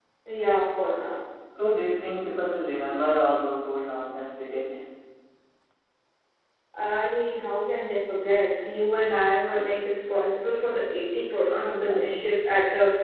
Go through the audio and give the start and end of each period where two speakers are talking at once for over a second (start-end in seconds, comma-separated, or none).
none